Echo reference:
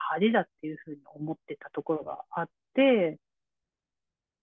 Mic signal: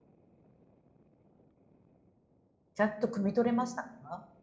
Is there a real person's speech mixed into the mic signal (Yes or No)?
Yes